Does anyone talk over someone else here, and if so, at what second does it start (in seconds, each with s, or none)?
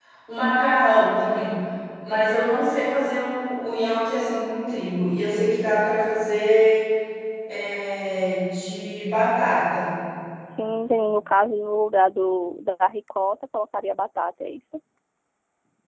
none